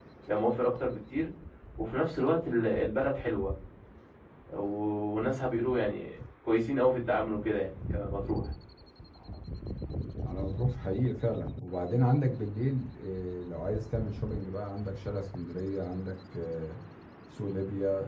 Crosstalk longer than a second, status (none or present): none